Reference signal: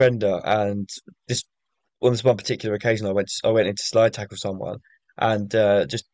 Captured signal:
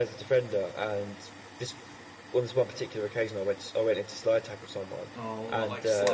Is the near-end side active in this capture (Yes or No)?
Yes